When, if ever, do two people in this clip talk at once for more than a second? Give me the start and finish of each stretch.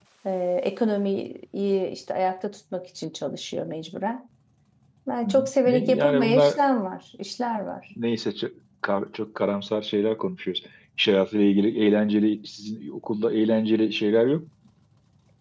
5.2-6.6

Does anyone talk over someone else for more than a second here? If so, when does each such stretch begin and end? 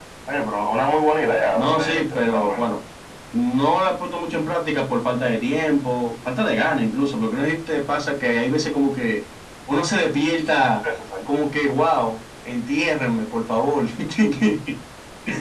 1.5-2.8

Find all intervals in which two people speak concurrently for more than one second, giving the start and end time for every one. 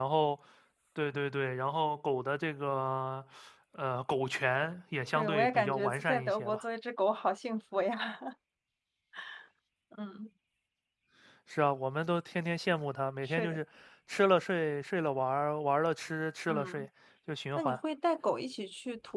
5.2-6.6

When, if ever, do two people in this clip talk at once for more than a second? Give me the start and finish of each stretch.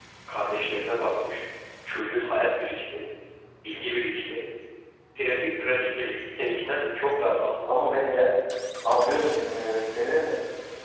none

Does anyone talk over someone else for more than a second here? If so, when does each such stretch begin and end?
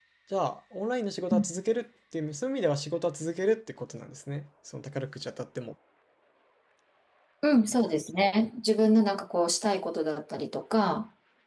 none

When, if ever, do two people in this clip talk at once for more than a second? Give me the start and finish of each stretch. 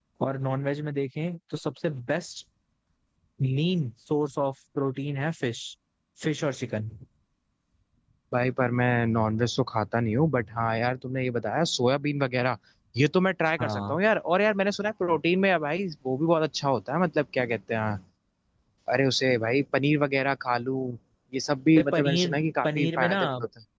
21.8-23.2

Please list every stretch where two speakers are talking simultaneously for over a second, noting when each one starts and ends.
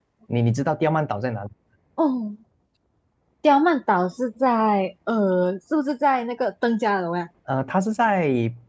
none

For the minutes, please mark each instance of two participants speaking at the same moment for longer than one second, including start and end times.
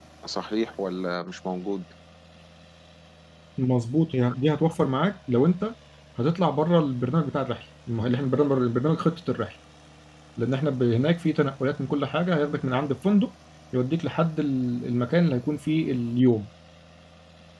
none

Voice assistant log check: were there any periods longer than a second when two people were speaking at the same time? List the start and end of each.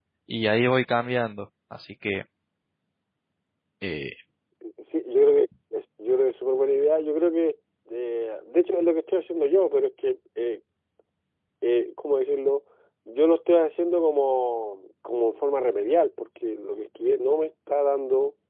none

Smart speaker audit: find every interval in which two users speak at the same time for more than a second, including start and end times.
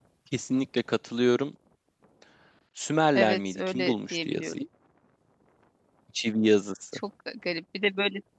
3.1-4.6

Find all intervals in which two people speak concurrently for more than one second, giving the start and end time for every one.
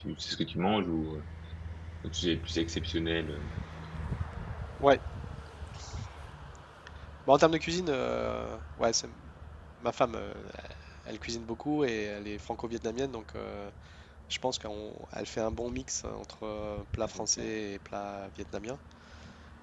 none

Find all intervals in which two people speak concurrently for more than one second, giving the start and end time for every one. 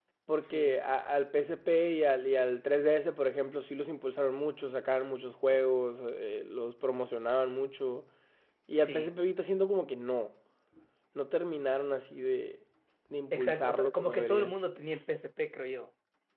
13.3-14.5

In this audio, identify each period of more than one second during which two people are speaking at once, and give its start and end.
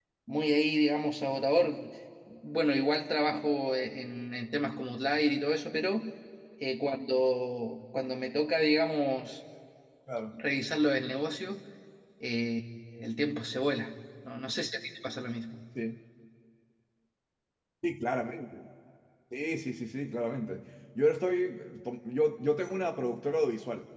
none

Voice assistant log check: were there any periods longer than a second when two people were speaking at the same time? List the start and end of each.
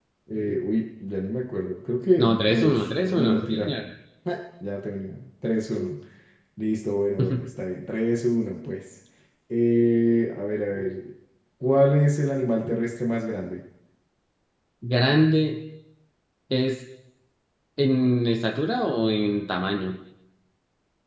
2.2-3.7

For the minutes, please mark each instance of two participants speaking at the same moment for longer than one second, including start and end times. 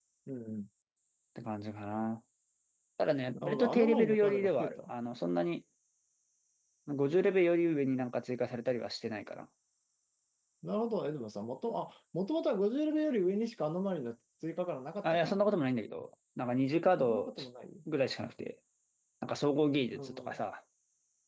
3.3-4.9

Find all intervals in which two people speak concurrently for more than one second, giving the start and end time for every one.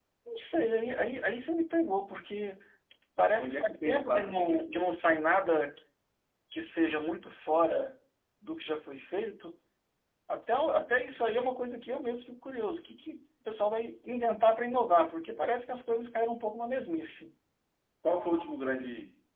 3.4-4.9

